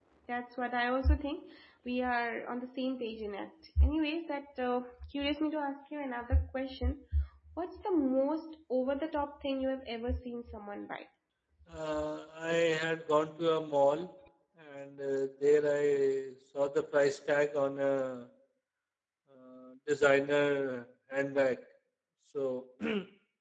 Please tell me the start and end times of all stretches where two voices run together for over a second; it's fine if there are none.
none

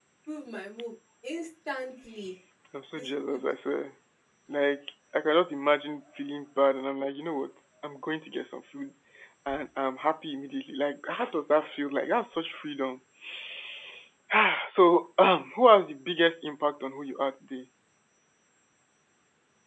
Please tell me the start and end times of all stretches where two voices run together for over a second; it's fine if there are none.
none

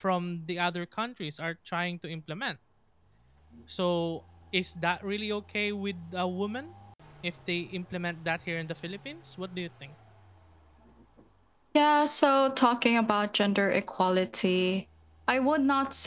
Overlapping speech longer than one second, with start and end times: none

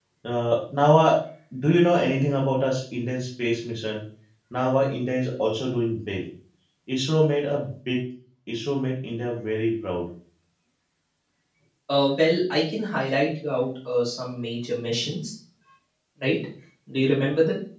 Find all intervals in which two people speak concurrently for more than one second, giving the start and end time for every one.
none

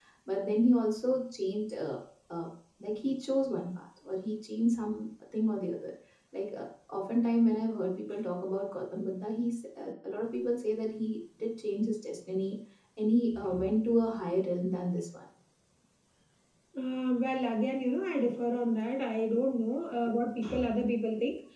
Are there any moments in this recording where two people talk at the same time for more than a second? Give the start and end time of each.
none

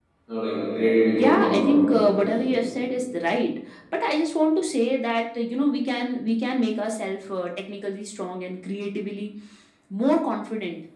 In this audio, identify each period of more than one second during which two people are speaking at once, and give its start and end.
1.1-2.4

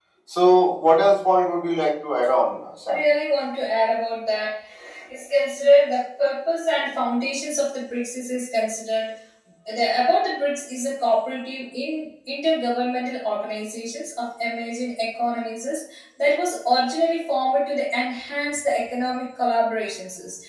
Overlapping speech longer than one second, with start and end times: none

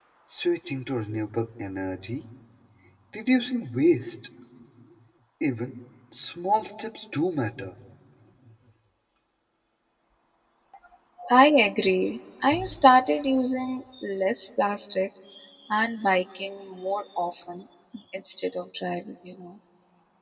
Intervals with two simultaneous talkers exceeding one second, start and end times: none

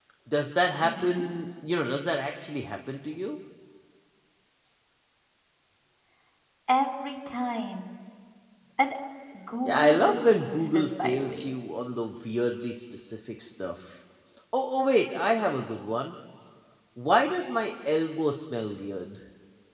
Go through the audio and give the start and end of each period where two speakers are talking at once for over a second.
9.6-11.5

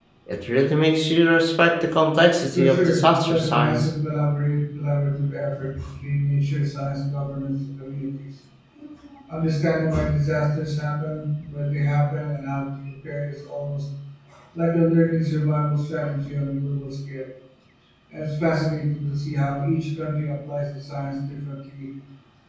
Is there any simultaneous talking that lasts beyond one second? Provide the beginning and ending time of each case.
2.5-3.8

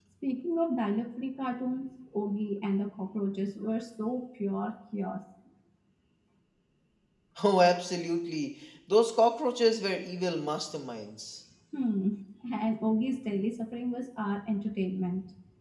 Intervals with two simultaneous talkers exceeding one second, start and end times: none

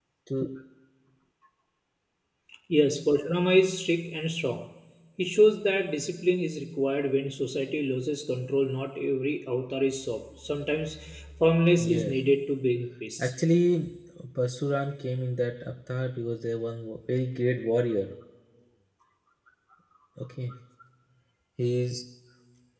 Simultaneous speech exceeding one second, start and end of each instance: none

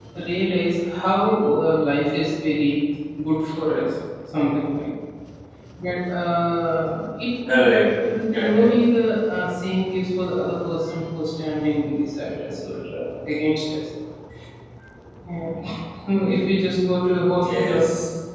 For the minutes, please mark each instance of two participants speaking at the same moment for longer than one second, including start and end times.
none

